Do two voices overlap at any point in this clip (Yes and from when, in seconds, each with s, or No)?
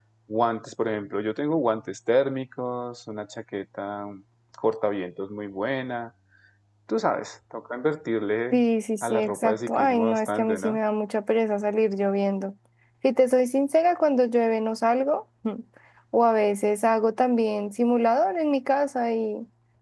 Yes, from 9.0 s